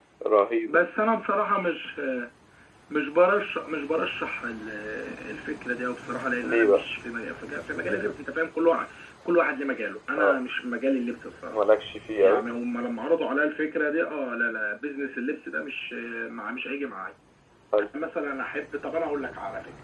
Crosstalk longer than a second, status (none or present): none